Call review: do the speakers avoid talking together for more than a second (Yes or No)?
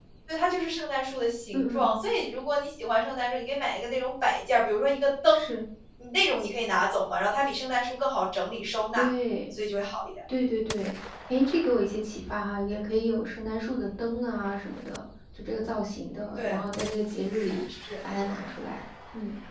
Yes